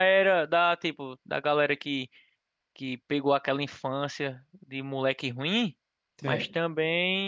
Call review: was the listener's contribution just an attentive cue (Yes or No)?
Yes